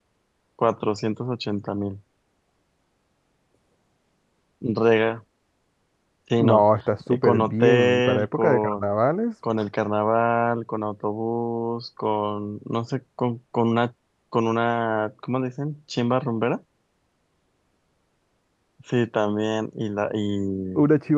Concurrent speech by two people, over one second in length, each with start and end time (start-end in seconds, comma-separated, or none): 7.1-8.9